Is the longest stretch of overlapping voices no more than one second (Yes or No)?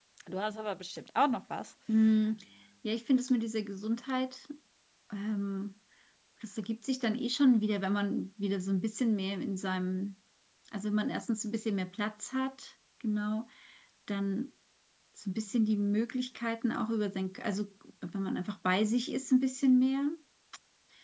Yes